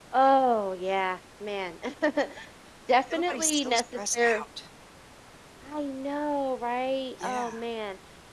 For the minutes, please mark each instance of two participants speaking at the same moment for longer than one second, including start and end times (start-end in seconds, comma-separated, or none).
3.1-4.4